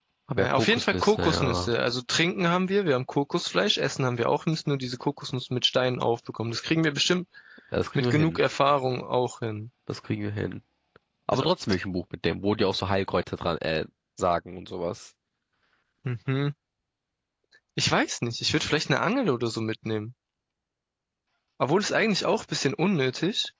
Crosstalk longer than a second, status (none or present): present